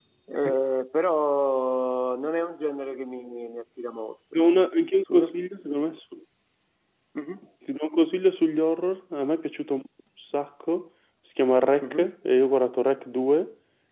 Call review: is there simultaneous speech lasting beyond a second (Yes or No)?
No